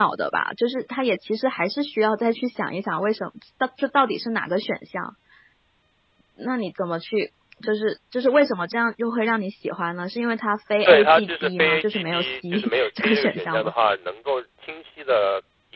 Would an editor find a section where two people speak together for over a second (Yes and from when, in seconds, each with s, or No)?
Yes, from 10.8 s